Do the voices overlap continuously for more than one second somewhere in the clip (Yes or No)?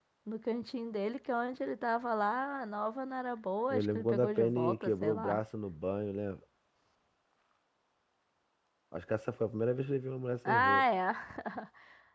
Yes